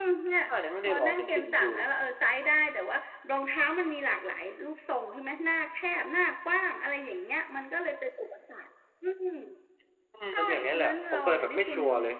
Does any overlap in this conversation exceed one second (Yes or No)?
Yes